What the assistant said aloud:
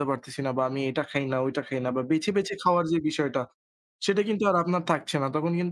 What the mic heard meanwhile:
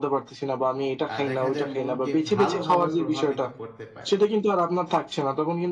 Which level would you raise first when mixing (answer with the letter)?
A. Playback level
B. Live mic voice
B